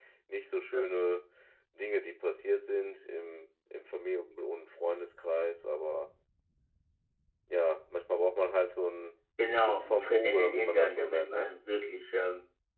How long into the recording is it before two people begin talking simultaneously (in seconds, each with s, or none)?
9.6 s